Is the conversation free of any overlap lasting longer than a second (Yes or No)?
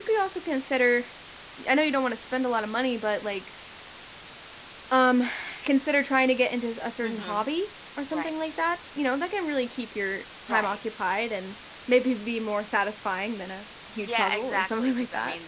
No